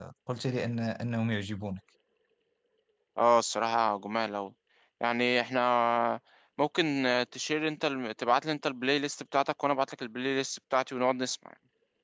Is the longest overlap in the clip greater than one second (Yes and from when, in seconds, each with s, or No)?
No